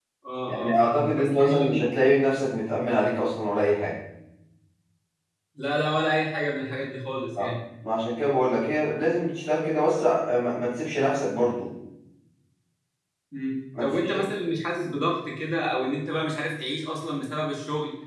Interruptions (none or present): present